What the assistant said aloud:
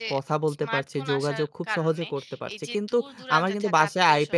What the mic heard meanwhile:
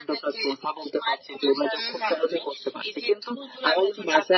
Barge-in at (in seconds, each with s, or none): 1.8 s